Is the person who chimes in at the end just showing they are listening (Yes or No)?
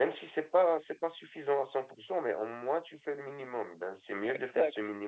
Yes